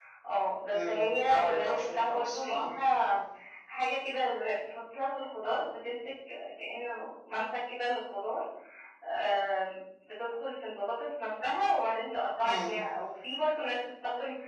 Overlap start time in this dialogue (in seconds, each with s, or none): 0.7 s